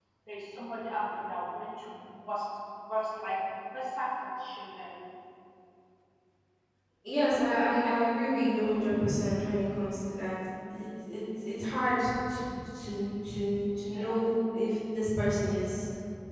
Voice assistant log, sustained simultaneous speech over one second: none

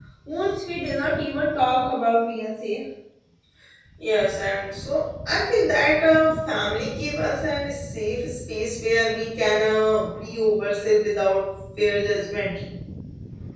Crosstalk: none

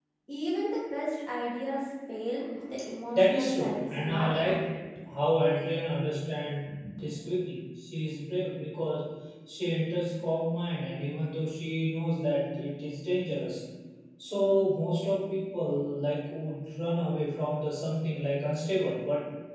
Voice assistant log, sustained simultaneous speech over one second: present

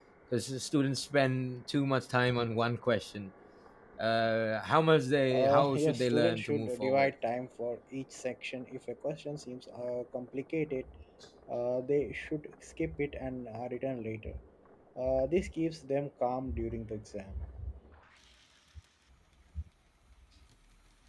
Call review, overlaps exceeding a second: present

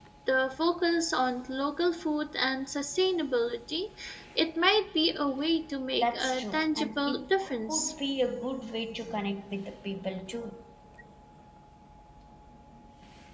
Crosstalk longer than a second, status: present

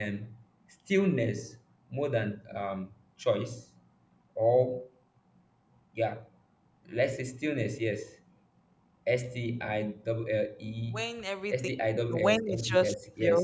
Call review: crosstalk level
present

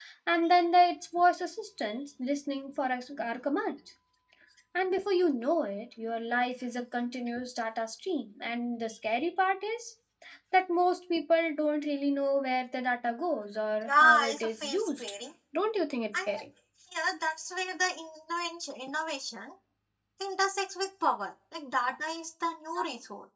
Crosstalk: present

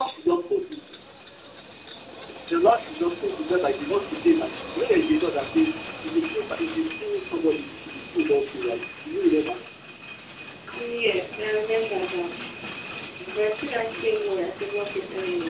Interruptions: none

